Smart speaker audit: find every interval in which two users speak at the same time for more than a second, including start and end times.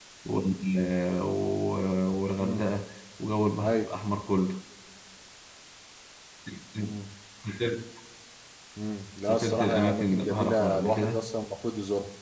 9.2-11.2

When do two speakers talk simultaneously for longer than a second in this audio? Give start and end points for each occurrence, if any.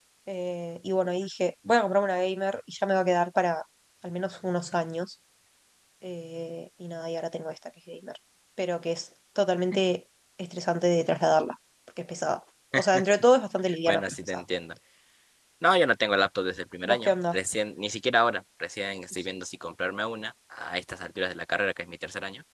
none

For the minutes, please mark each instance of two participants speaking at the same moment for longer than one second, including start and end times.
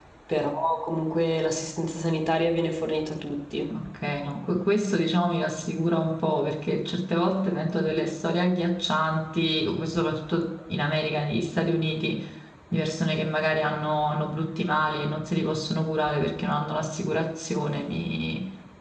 none

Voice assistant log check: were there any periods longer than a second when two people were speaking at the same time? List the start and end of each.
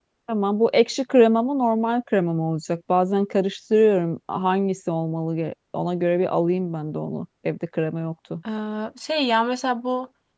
none

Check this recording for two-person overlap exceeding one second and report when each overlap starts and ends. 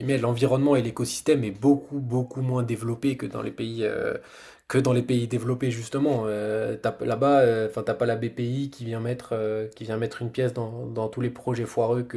none

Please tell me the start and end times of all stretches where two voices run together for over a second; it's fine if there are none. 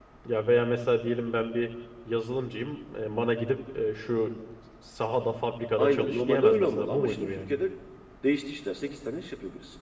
5.8-7.5

